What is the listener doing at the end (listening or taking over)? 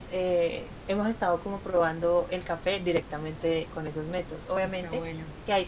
listening